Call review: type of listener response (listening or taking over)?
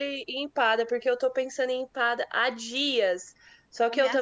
listening